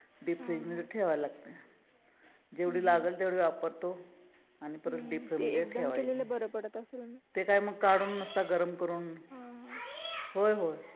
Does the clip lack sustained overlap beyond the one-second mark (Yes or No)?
No